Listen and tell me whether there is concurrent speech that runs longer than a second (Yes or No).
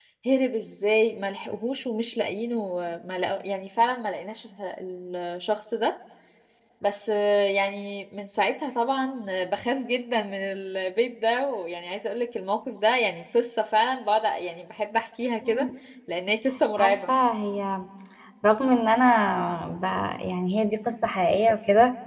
No